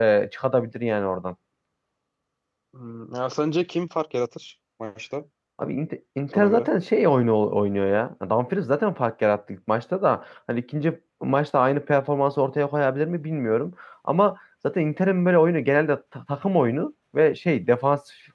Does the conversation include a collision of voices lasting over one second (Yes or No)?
No